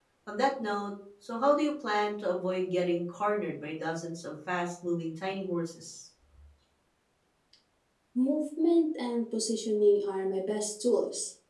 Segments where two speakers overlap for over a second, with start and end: none

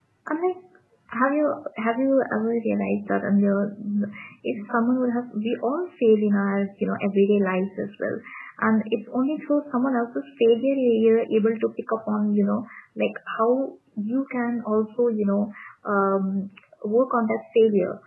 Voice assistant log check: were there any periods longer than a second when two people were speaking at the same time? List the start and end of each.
none

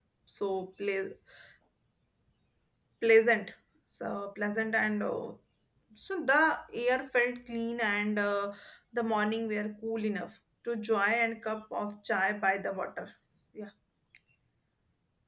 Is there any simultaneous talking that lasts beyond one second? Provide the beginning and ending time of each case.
none

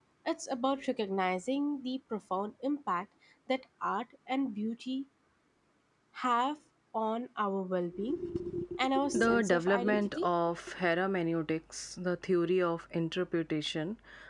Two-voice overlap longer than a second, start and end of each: 9.0-10.3

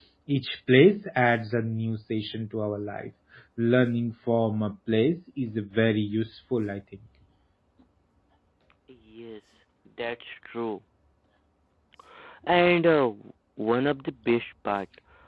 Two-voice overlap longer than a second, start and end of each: none

